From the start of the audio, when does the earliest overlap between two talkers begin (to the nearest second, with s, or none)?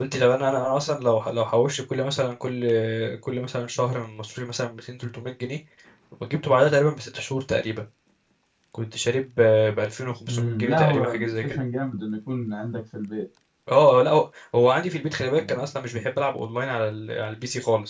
10 s